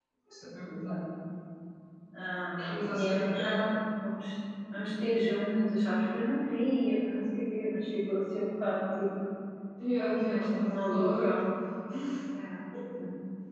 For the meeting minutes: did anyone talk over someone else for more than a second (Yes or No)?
Yes